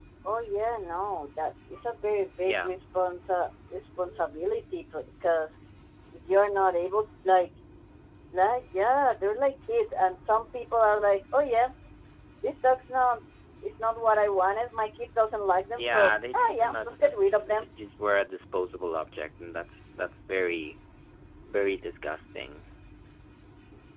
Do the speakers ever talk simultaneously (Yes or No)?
Yes